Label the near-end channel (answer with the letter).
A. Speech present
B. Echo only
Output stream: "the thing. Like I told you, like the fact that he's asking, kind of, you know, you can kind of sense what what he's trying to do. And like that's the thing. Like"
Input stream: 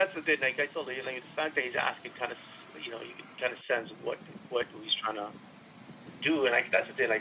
B